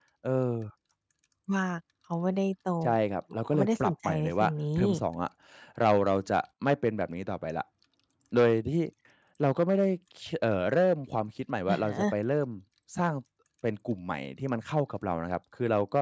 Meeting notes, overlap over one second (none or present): present